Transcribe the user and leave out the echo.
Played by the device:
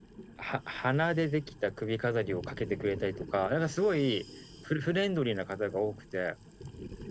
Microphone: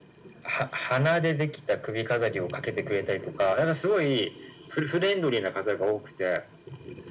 none

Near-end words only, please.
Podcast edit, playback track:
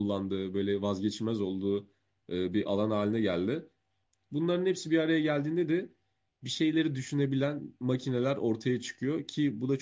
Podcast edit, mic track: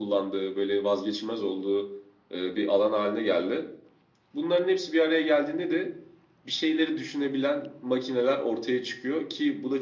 none

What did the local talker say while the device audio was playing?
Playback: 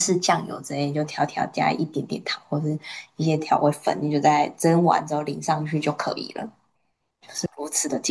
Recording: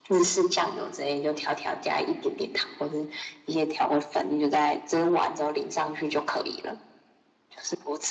none

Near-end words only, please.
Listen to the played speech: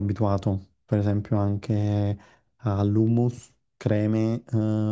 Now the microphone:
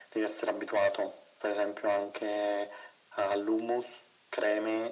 none

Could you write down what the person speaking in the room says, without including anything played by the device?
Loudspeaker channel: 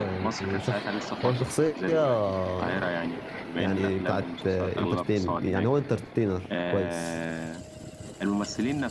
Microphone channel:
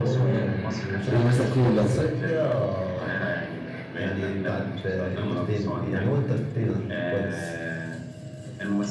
الا مثلا الفيل الازرق

